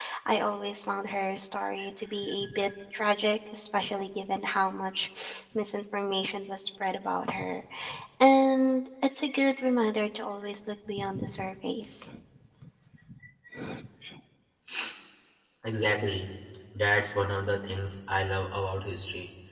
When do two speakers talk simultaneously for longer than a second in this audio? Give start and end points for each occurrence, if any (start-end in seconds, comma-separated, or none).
none